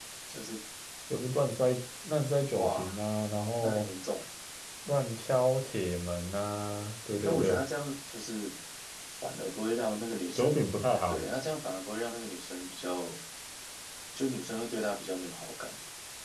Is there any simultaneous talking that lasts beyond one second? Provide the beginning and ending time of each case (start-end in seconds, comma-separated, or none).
none